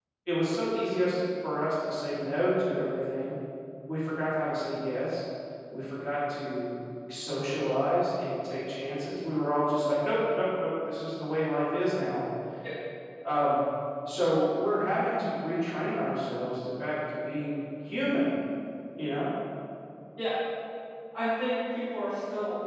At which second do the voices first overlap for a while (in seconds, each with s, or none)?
none